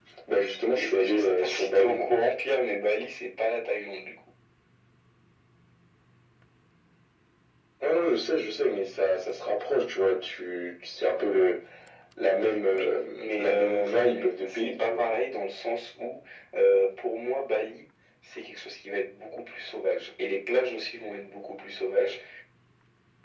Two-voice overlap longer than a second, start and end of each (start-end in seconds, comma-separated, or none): 0.7-2.1, 12.7-15.0